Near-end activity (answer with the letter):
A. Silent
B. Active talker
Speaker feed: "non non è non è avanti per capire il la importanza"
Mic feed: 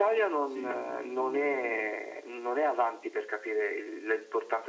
B